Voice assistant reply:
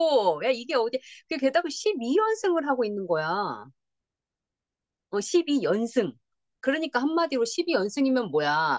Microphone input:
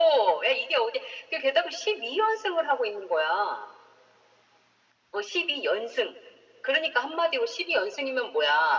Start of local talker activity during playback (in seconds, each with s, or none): none